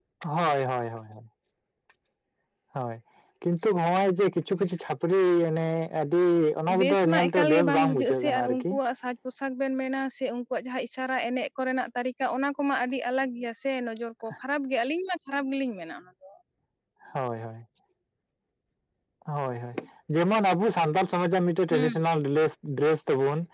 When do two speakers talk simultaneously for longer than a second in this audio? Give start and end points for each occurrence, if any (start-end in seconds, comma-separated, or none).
6.8-8.7